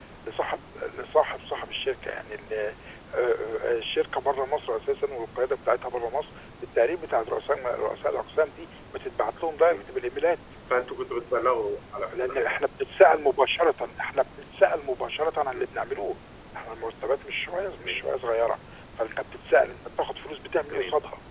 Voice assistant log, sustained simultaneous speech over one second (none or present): none